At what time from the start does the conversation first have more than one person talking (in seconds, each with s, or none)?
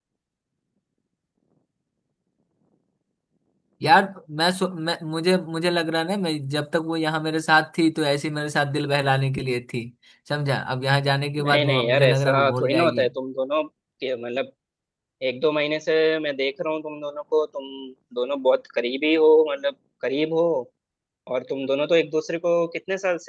11.4 s